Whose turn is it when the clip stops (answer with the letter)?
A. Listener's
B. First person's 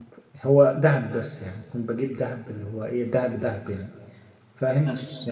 B